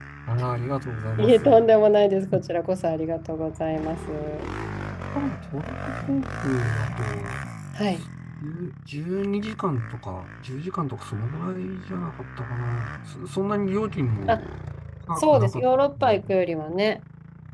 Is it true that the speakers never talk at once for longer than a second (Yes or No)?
No